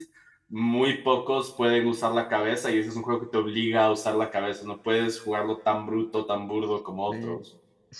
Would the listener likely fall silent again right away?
No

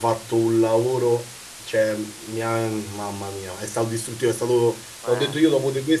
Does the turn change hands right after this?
No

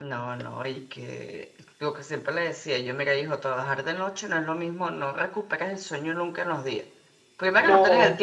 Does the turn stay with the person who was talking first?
Yes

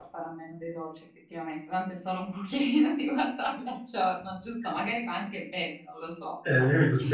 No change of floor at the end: No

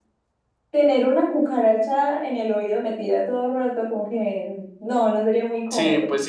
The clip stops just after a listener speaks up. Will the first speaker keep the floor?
No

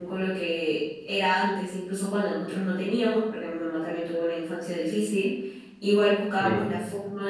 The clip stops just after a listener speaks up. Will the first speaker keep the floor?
Yes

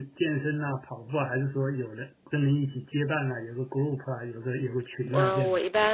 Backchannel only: No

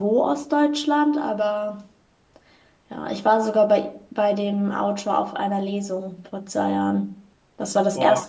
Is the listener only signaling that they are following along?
Yes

